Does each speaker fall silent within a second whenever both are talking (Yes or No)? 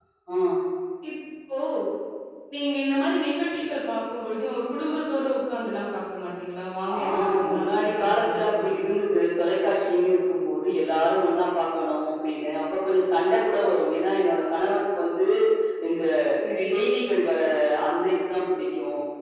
No